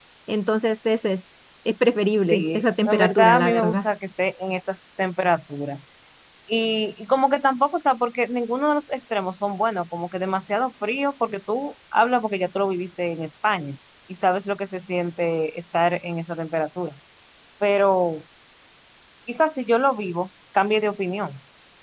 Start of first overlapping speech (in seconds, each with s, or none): 2.3 s